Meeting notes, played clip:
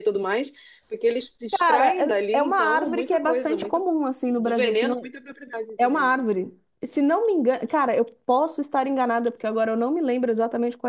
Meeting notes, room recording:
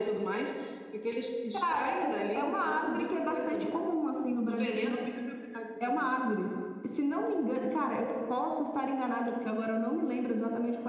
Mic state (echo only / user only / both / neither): echo only